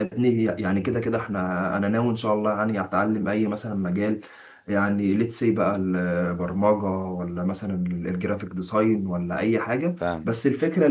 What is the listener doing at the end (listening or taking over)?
listening